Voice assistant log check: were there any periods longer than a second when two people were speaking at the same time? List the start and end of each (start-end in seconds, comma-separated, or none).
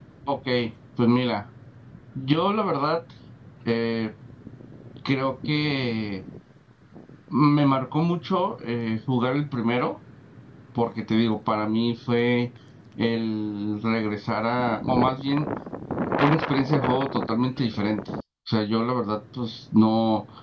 none